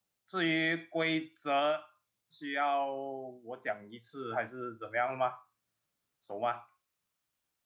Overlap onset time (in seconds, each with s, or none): none